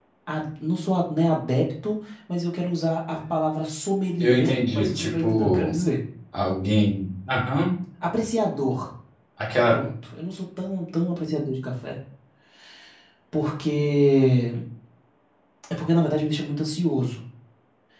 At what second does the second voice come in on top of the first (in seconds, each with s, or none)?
4.2 s